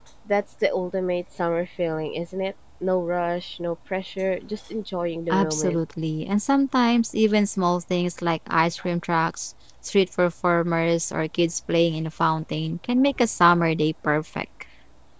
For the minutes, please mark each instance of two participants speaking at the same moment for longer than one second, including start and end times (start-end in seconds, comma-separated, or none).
none